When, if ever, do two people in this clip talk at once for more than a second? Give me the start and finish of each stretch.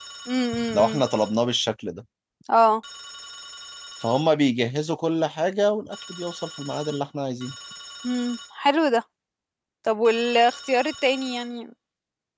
none

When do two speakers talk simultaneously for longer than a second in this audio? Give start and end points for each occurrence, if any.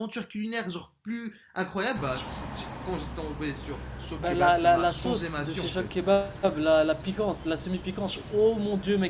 4.2-5.9

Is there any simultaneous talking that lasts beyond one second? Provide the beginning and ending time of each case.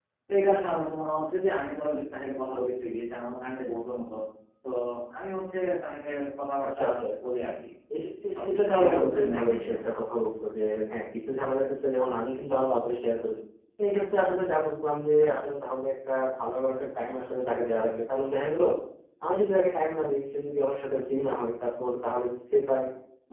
8.3-9.9

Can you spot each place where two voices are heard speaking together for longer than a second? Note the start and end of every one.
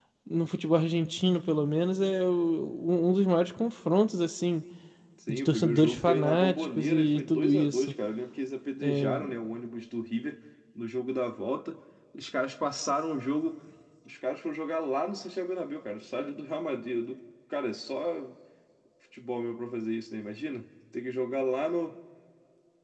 5.3-7.9

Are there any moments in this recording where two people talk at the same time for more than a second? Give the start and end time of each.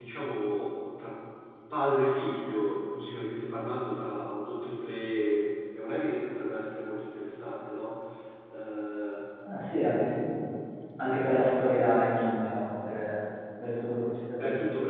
none

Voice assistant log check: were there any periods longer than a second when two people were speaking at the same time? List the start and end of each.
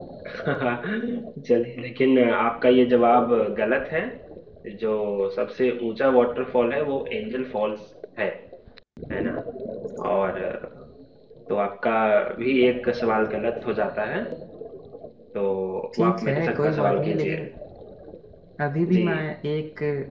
16.0-17.4

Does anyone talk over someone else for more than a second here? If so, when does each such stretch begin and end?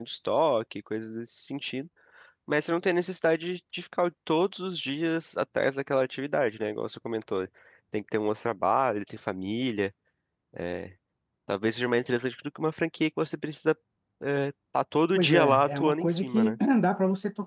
15.2-16.6

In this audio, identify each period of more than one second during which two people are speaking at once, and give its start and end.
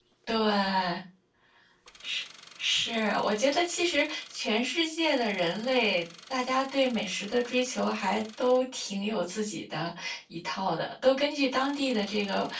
none

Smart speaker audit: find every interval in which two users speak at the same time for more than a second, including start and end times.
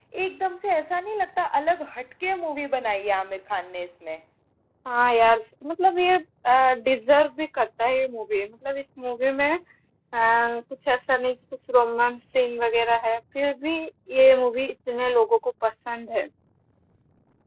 none

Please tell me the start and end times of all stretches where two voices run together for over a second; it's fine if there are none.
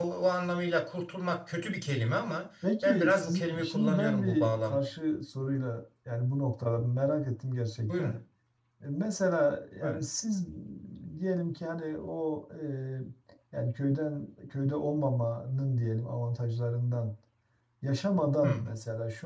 2.8-4.8

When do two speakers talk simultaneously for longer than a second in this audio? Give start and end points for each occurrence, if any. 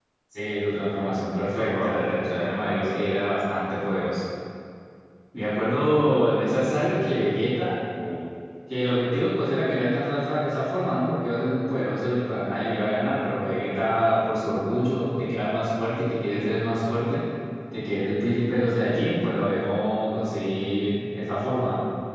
1.5-2.9

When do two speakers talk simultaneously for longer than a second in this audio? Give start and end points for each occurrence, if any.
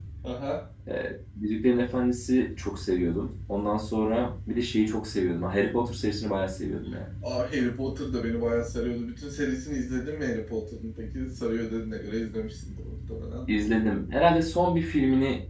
none

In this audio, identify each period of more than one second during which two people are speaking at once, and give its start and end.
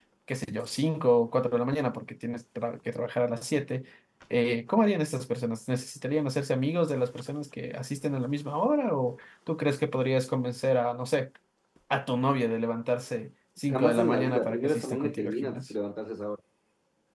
13.7-15.6

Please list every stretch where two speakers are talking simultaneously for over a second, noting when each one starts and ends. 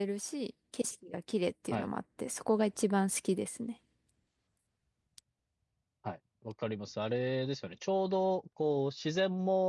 none

